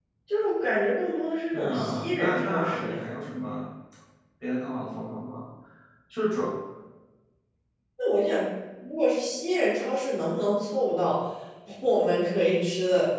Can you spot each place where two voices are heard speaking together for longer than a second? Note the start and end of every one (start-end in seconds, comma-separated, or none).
1.5-3.0